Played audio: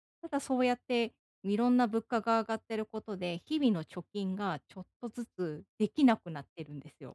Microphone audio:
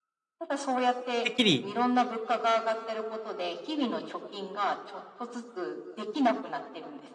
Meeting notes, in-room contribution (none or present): present